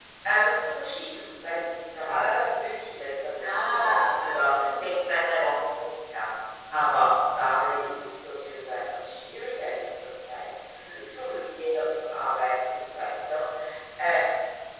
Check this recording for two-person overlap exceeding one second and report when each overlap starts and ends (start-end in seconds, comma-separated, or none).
3.5-5.1